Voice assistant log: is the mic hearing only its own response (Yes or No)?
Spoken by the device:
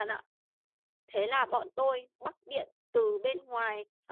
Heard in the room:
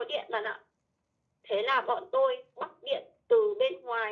Yes